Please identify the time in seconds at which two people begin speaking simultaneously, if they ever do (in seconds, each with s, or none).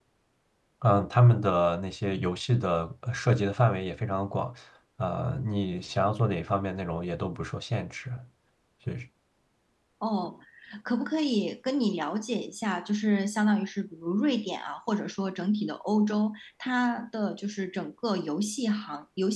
none